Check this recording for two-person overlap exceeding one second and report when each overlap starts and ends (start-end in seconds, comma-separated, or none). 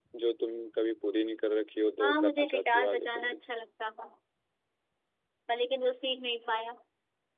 2.0-3.4